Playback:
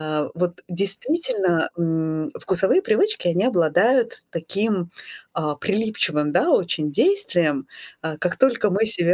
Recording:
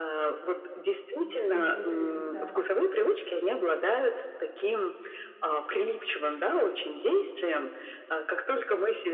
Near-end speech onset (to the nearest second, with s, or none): 1 s